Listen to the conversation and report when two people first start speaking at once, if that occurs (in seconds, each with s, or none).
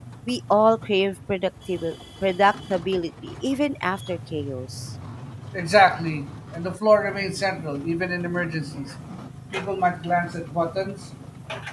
none